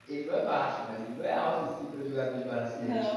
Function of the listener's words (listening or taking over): taking over